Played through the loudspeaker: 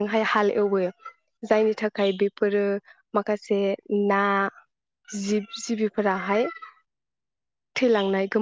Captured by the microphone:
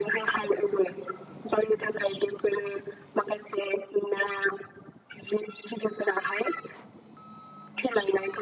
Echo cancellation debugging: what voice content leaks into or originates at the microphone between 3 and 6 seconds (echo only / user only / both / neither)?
echo only